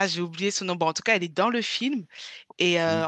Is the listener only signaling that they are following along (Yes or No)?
Yes